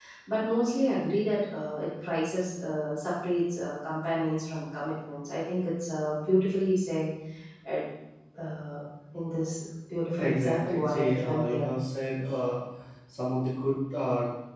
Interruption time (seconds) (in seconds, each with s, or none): 10.2 s